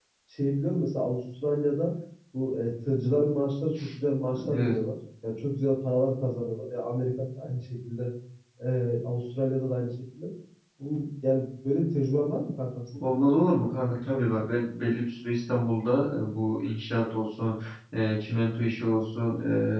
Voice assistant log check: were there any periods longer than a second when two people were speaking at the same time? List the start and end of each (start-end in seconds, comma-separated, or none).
none